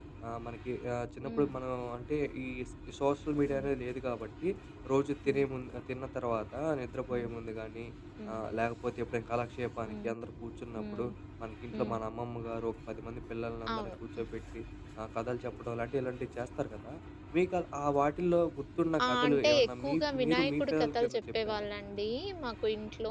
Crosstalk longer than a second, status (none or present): present